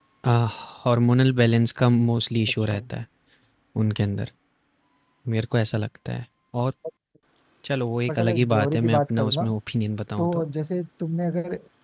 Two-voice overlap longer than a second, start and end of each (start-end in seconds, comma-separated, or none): 8.1-9.4